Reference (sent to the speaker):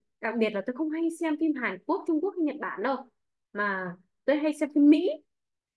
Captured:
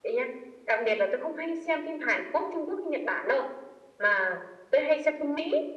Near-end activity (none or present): none